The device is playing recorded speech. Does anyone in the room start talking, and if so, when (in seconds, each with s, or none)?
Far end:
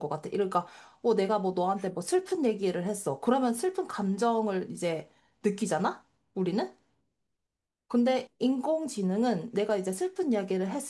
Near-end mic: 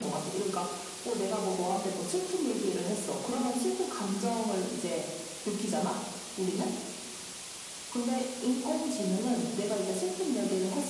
none